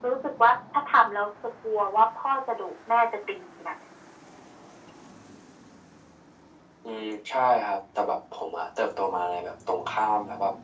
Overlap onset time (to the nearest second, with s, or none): none